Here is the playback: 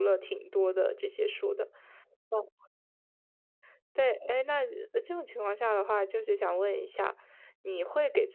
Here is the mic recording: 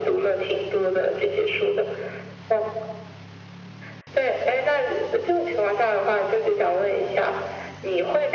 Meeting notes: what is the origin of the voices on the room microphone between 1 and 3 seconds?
echo only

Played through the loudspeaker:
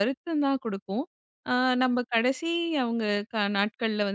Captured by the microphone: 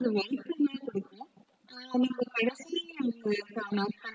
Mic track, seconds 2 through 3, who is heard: echo only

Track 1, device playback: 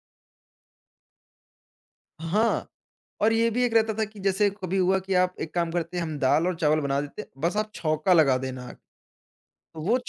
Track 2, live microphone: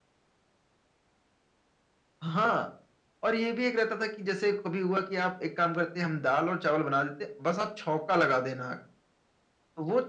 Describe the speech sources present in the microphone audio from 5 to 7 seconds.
echo only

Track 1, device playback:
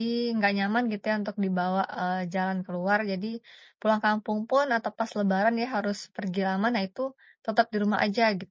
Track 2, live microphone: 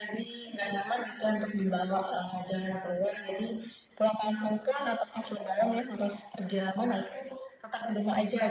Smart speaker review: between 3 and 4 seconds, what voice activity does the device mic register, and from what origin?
echo only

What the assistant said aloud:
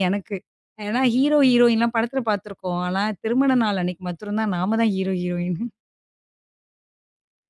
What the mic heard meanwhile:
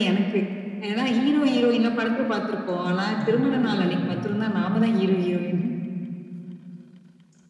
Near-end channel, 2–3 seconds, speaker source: echo only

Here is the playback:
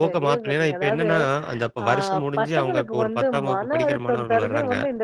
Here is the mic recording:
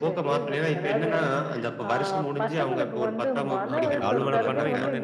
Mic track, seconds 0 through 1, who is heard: echo only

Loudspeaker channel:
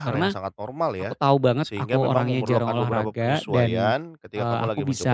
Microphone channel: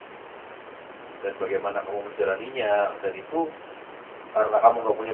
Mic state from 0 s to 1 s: neither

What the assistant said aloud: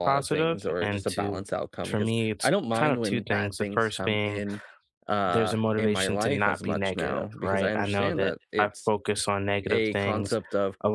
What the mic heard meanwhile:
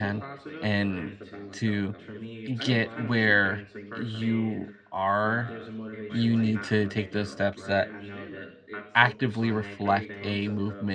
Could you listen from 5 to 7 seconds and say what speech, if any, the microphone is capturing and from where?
both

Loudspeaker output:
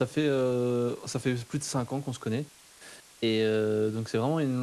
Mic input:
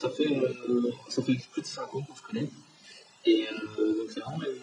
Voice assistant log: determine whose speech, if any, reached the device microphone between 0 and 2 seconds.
echo only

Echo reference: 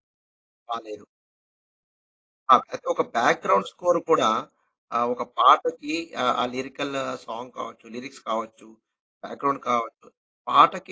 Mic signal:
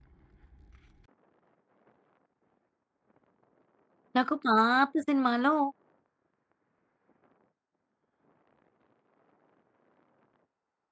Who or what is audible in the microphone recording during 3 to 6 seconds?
user only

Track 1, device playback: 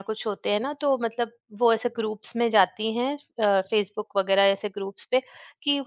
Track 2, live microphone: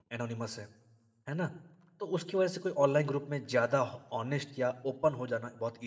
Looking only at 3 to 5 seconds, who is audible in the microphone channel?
user only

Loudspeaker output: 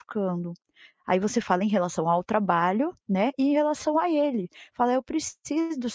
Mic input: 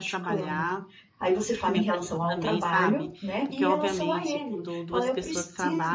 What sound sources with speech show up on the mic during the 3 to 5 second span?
both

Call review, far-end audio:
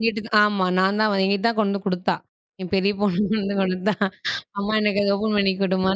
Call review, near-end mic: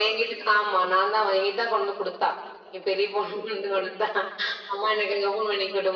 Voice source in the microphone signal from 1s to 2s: echo only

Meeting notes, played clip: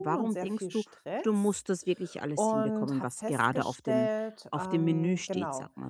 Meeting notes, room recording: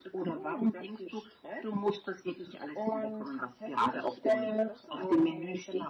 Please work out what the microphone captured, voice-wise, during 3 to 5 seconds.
both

